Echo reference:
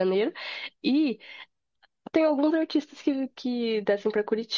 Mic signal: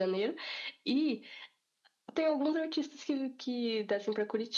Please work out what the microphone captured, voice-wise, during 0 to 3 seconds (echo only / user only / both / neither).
echo only